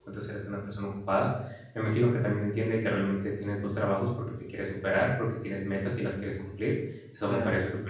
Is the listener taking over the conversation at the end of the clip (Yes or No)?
No